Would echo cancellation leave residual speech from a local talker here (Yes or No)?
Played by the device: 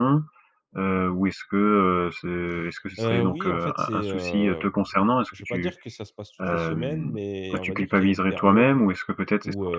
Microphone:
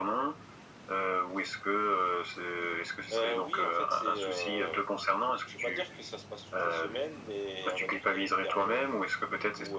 No